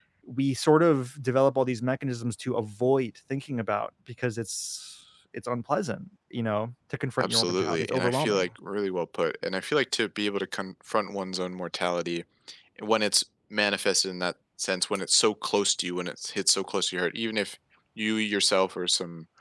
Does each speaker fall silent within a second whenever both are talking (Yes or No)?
No